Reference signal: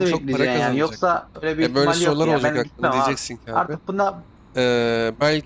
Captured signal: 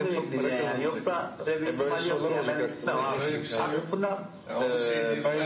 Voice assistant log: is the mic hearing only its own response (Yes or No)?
No